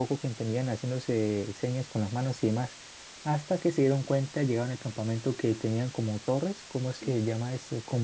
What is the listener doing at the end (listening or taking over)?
listening